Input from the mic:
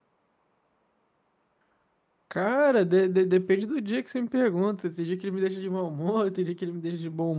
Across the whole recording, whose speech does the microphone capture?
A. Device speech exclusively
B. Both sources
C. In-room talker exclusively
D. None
C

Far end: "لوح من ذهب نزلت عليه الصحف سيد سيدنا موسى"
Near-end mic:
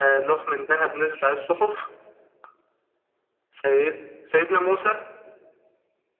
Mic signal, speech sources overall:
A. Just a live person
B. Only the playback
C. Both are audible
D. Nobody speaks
B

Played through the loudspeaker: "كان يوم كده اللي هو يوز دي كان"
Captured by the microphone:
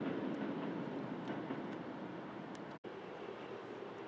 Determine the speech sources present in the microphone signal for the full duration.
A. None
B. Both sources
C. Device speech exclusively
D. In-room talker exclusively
A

